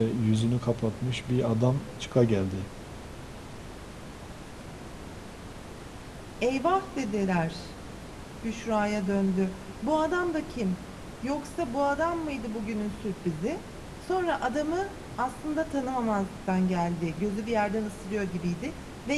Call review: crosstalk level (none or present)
none